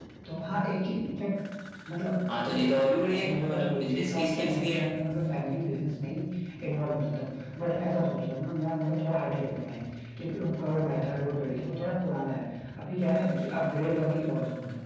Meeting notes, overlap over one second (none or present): present